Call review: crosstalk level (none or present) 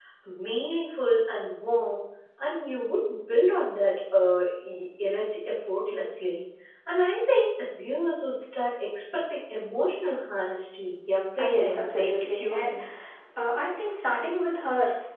present